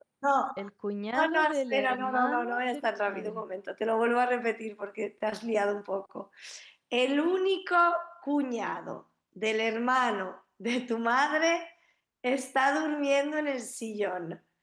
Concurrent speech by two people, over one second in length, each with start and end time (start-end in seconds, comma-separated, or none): 1.1-3.4